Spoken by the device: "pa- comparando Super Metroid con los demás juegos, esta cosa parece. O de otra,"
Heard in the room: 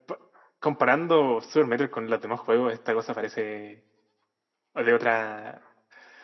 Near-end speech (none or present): none